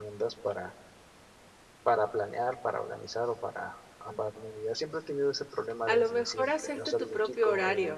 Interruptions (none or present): present